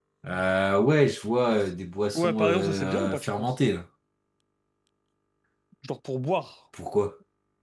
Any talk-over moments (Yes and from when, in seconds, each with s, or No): Yes, from 2.1 s